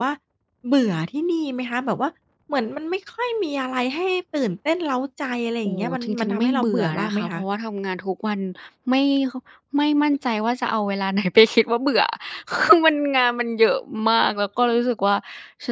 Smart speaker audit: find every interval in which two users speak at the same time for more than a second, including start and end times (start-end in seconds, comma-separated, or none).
5.7-7.4